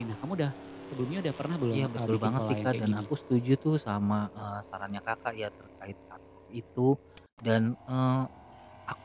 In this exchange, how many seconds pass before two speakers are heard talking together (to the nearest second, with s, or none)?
2 s